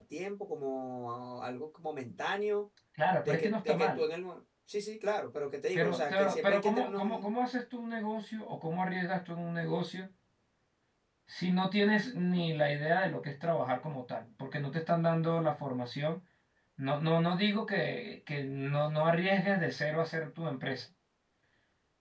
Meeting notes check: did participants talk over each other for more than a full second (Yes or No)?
Yes